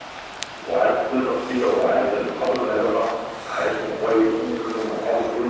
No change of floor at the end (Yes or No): Yes